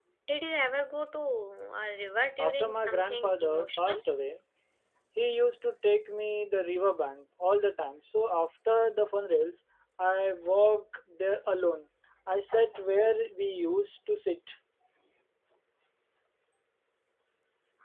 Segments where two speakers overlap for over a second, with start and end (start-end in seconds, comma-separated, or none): 2.4-4.0